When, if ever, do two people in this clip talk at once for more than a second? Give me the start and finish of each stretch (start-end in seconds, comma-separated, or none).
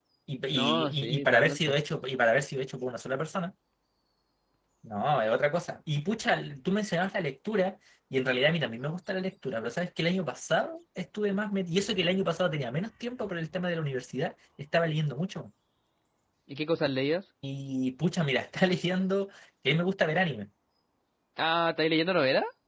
0.5-1.8